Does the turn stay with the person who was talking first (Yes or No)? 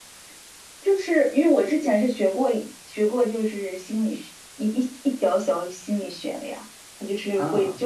Yes